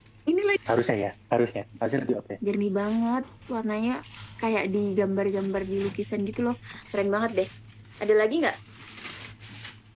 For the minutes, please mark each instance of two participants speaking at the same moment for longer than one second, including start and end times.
none

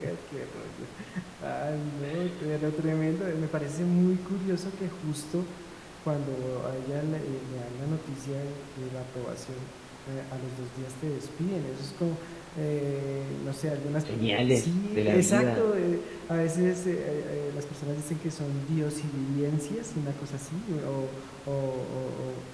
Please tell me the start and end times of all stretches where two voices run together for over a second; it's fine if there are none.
14.5-15.7

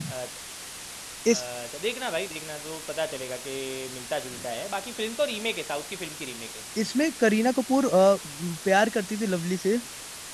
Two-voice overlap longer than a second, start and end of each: none

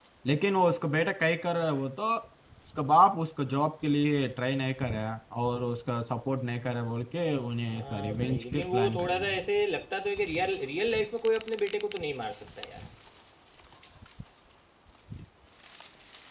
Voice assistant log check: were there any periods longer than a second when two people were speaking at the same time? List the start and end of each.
7.7-9.4

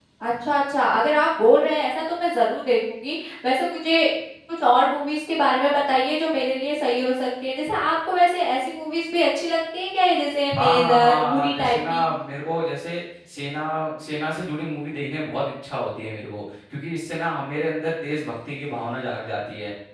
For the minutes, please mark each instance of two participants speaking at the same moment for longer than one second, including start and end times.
10.6-12.0

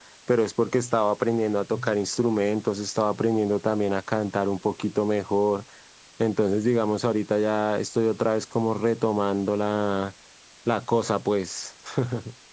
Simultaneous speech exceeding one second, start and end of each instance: none

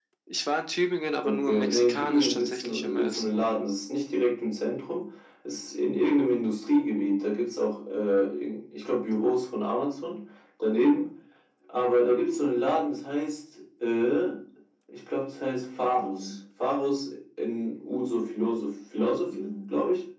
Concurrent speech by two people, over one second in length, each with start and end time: 1.2-3.4

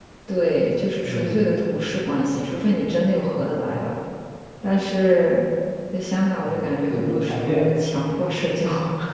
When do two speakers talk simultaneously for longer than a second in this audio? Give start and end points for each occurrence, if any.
6.4-7.7

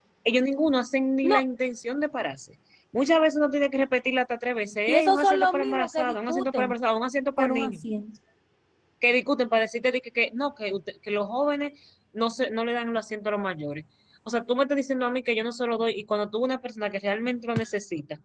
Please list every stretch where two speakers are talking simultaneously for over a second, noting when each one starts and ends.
4.9-6.7

